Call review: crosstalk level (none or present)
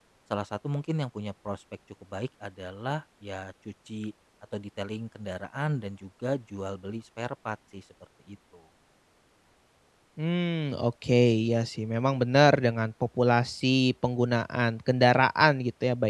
none